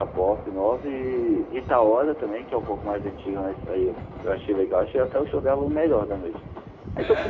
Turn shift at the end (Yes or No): No